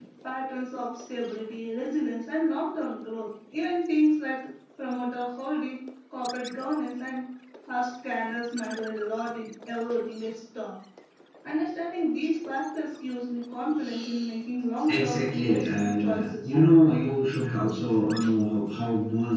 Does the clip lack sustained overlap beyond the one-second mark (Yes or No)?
No